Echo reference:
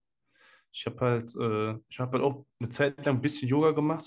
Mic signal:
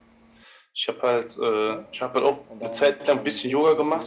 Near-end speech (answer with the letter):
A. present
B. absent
A